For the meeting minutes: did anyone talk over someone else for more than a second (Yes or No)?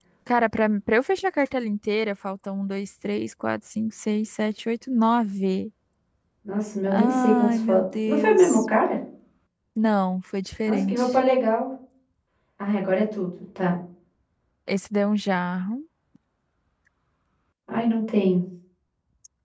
Yes